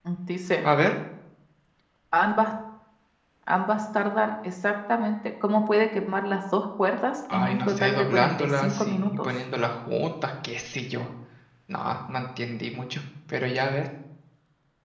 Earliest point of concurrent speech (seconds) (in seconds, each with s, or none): 7.3 s